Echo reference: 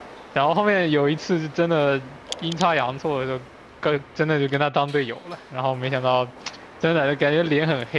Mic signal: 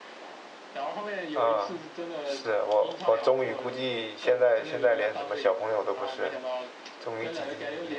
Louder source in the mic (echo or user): user